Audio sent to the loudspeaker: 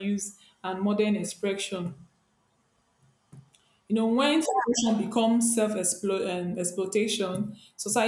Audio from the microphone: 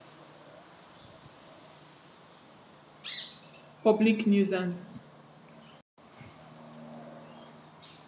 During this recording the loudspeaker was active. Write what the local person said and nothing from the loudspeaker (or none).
public nuisance.